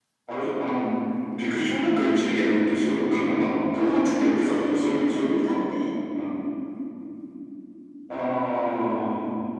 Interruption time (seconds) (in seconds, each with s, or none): 3.8 s